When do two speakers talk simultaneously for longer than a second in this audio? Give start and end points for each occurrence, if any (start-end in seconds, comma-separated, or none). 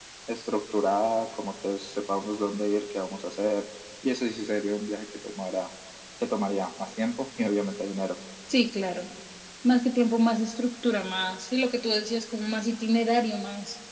none